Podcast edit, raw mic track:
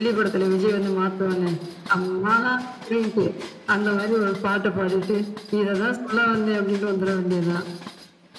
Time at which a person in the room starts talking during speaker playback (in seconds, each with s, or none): none